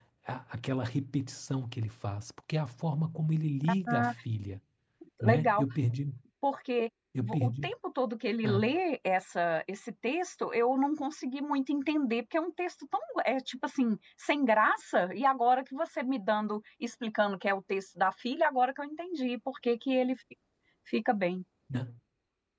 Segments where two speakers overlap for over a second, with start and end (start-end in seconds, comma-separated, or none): none